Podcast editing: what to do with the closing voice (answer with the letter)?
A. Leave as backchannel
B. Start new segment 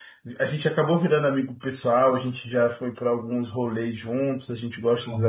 A